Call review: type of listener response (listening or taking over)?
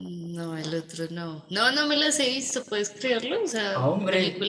listening